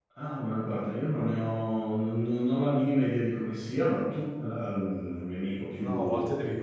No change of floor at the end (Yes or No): No